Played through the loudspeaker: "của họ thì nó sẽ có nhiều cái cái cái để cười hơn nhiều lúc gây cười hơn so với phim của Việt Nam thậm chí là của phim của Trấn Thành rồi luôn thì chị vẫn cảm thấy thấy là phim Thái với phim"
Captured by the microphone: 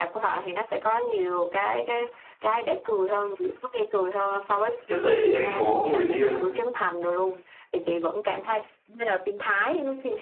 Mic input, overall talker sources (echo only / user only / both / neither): both